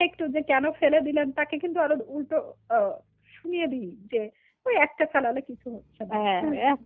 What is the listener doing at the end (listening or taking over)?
taking over